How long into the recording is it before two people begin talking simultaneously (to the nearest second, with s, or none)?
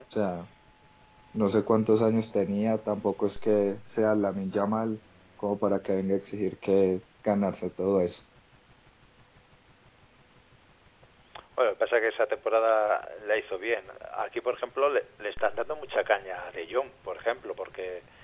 none